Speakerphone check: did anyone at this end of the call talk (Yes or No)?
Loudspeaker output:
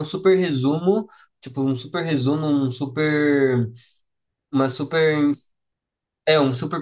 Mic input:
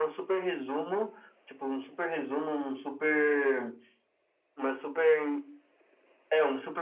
No